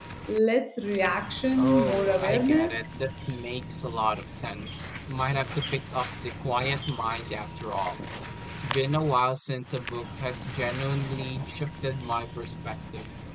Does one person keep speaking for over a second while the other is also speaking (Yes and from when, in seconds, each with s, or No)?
Yes, from 1.6 s